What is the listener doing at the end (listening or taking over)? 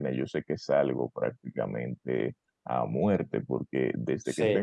listening